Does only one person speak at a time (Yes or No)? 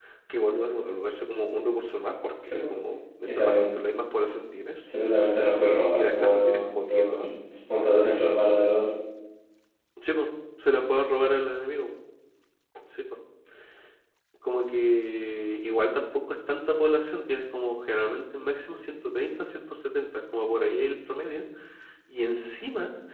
No